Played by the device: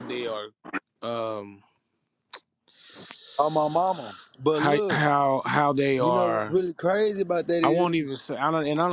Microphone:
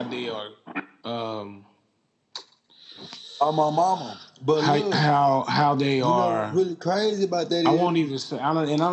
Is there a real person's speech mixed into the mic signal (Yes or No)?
No